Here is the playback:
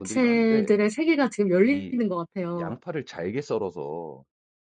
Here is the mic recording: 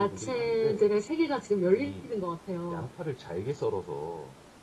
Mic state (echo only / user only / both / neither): echo only